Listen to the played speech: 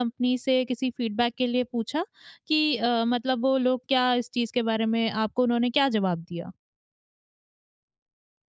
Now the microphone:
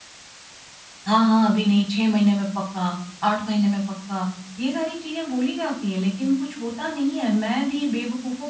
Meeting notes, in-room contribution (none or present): present